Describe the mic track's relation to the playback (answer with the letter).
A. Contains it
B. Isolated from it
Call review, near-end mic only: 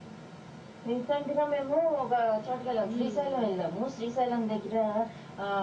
A